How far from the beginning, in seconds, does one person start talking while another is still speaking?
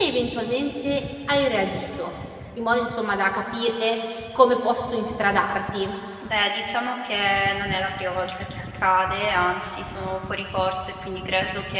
none

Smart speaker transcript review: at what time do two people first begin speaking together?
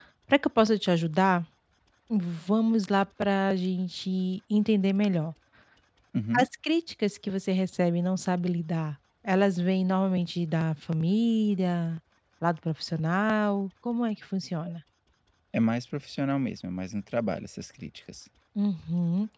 none

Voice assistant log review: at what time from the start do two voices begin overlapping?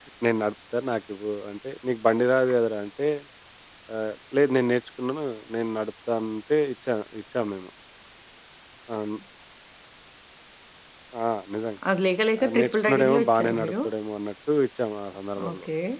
12.4 s

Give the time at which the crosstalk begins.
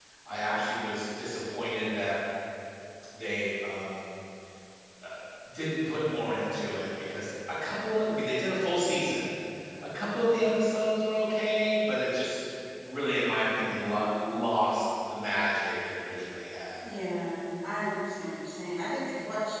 none

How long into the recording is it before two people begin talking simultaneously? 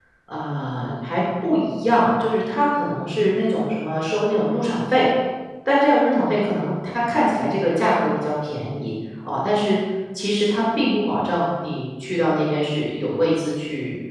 none

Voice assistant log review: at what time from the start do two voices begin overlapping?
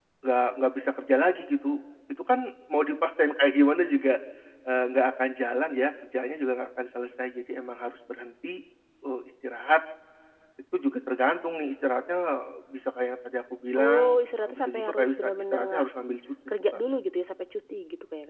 13.8 s

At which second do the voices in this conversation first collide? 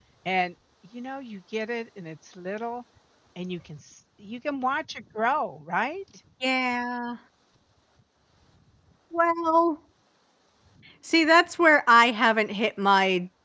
none

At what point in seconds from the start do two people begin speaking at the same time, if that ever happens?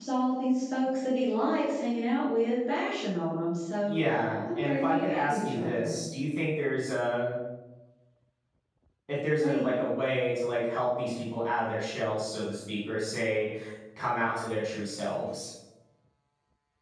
4.5 s

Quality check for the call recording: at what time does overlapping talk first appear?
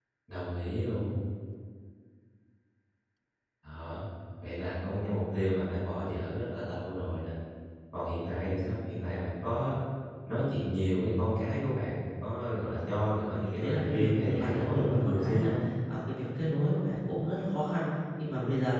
13.6 s

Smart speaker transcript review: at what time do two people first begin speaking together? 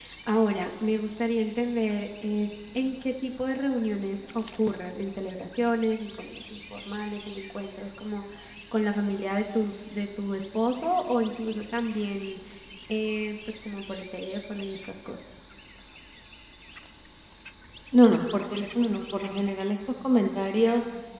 none

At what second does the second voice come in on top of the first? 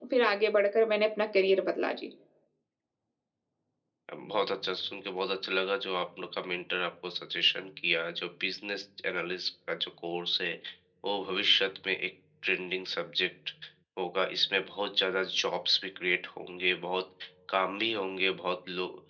none

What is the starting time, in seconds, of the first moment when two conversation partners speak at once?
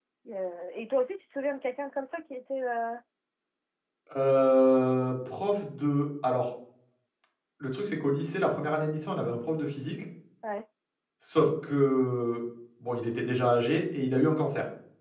none

